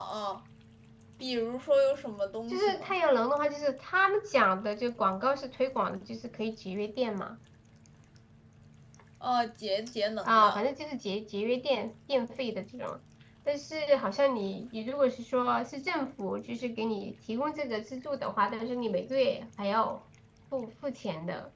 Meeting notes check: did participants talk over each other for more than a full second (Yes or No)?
No